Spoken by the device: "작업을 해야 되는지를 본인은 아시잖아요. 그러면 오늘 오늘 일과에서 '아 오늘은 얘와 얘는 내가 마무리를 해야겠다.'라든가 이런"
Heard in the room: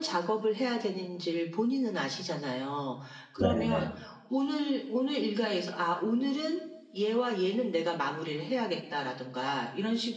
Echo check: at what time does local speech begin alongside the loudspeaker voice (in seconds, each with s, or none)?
3.4 s